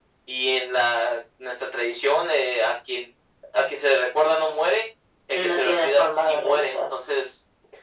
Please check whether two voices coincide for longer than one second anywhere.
Yes, from 5.3 s

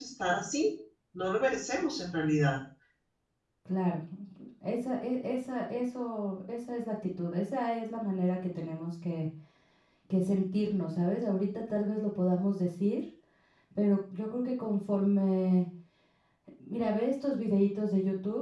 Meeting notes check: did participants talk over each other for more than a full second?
No

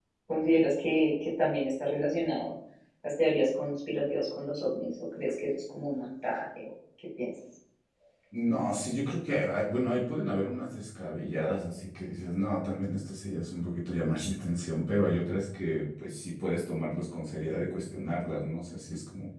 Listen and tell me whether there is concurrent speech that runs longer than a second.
No

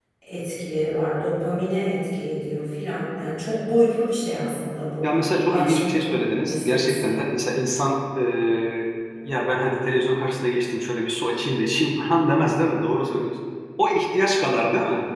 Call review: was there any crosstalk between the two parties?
Yes, from 5.5 s

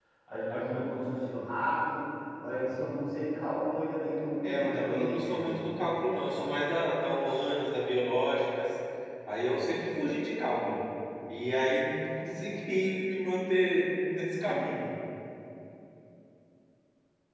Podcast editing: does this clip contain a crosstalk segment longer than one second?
Yes, from 4.4 s

